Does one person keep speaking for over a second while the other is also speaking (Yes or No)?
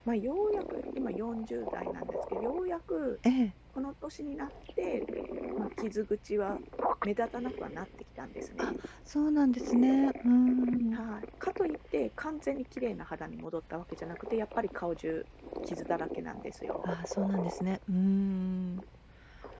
No